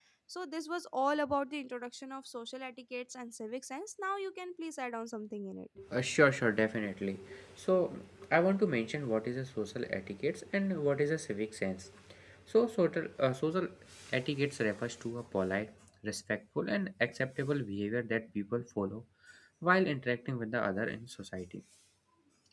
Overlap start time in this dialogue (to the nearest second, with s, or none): none